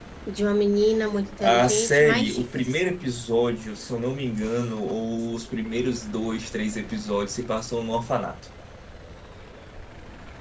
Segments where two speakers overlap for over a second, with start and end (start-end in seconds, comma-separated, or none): 1.4-2.8